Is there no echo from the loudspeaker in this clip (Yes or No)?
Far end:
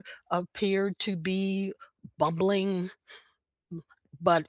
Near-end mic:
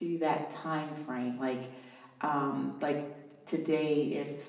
Yes